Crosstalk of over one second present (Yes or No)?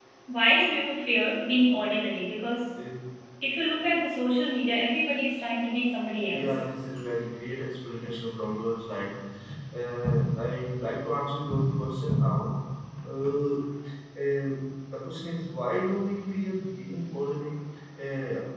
No